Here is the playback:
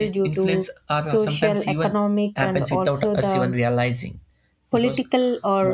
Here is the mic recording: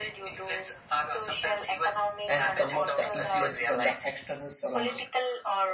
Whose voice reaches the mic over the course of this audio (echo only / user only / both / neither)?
both